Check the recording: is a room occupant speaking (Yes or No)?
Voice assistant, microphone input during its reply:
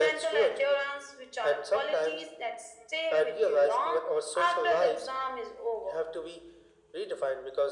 No